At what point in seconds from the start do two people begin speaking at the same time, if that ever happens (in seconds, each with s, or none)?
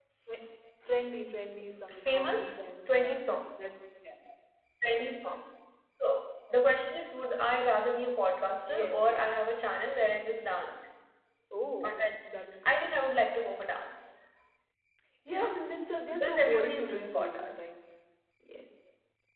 1.9 s